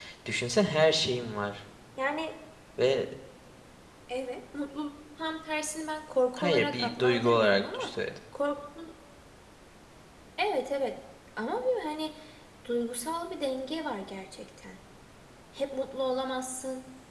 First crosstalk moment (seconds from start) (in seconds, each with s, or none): 6.4 s